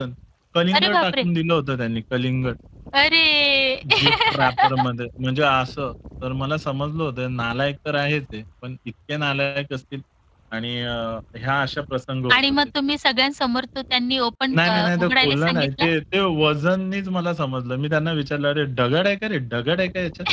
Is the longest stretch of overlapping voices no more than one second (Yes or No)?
No